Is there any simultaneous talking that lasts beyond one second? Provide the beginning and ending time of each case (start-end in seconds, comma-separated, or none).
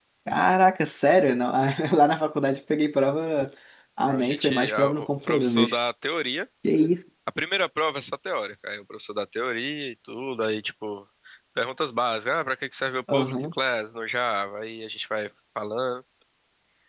4.1-5.7